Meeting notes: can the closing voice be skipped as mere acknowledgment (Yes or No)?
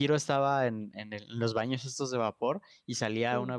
Yes